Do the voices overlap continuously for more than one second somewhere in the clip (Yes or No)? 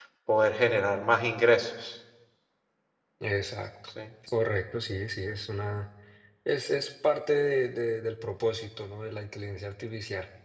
No